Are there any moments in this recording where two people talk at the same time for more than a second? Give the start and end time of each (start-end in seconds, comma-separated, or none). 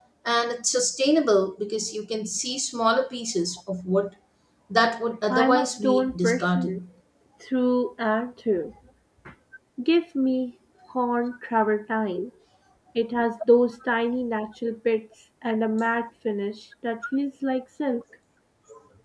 5.3-6.8